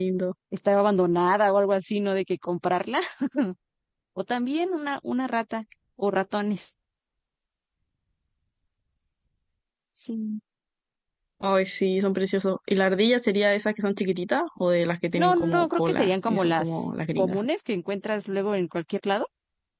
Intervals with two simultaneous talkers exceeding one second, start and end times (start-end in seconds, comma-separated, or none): 15.2-17.5